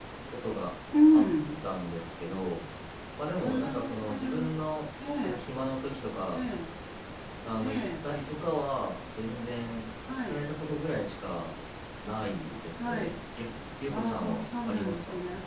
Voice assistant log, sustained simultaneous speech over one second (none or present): present